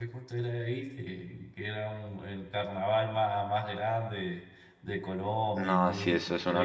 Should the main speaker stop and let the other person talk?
Yes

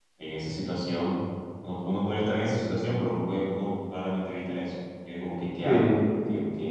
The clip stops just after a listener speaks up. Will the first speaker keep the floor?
Yes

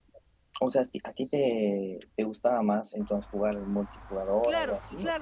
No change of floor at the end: No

